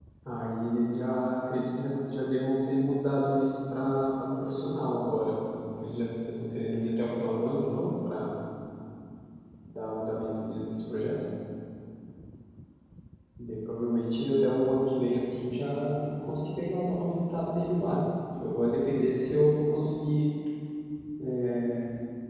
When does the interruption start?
none

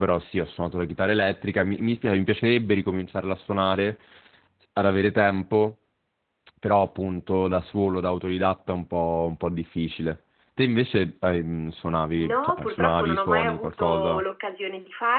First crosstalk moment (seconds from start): 12.1 s

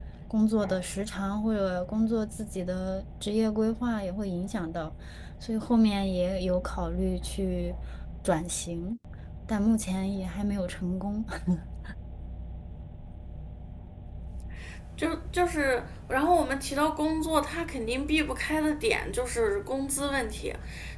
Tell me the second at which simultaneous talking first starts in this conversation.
none

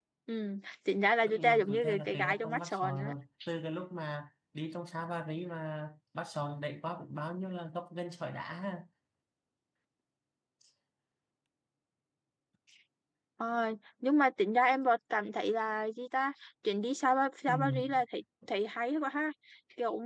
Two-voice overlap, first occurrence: 1.2 s

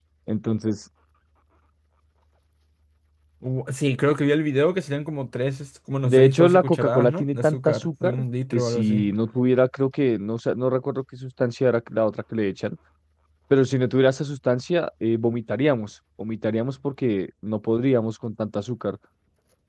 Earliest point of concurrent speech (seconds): 6.0 s

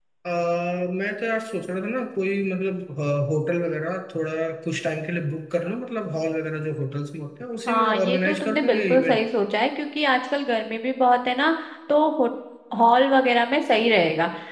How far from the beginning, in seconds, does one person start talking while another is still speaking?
7.7 s

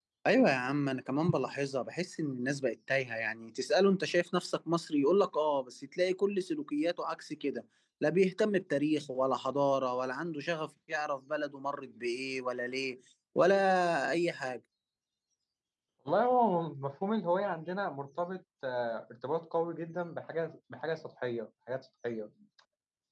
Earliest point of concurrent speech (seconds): none

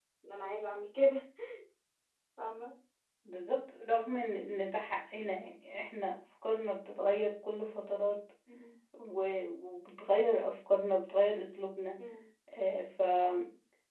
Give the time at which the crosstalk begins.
none

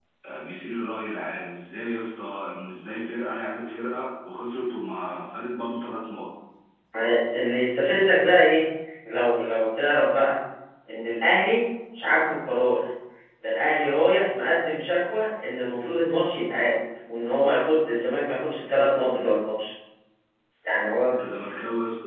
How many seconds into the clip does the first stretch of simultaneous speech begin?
none

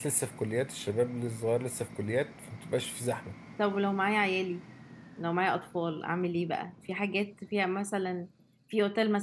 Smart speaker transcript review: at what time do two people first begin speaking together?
none

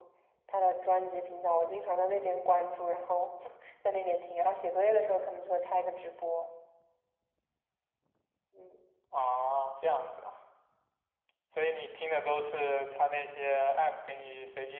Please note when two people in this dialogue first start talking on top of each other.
none

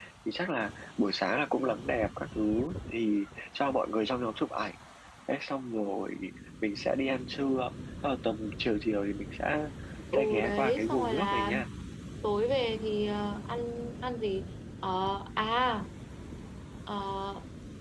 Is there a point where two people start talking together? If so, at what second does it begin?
10.2 s

